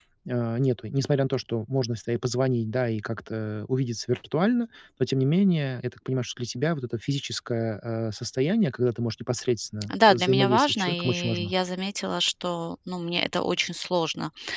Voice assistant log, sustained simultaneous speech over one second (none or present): present